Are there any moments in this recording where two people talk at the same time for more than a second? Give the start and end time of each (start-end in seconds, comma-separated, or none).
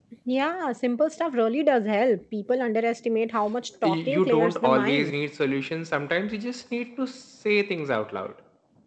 3.8-5.2